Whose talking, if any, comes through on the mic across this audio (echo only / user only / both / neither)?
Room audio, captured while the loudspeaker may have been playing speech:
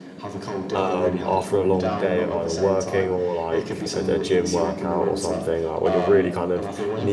both